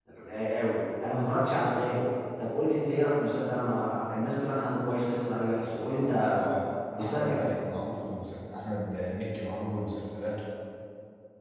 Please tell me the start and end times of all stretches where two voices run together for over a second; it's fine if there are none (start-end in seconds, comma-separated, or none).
none